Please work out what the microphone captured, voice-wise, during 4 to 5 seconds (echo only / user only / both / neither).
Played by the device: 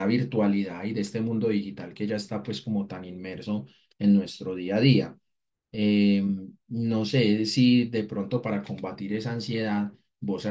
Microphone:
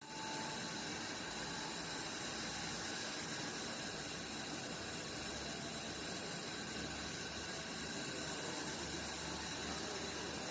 neither